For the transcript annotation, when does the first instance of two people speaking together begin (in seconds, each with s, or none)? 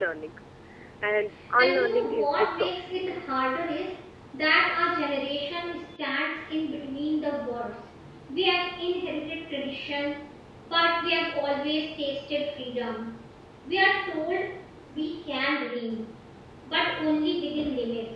1.6 s